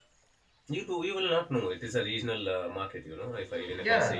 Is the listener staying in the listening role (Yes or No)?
No